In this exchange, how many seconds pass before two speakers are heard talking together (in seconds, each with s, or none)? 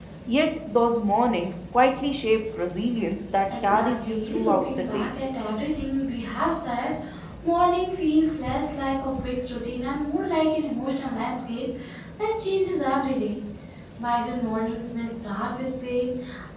3.5 s